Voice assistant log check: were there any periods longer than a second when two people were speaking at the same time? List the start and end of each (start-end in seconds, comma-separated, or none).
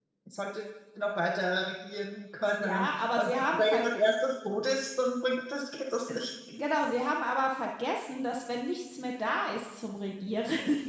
2.5-3.9